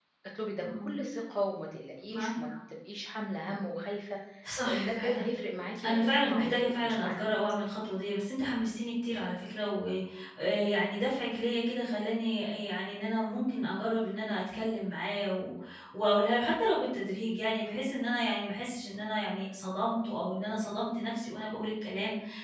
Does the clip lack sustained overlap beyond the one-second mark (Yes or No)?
No